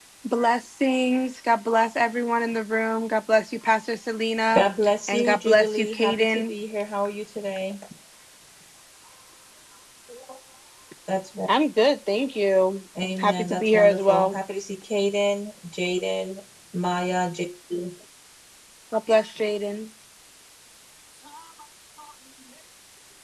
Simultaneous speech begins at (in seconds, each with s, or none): 5.1 s